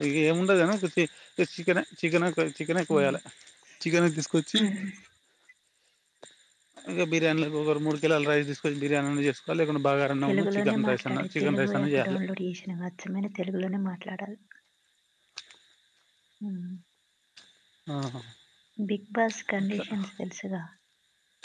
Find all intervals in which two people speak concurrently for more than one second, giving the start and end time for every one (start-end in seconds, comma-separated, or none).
10.2-12.2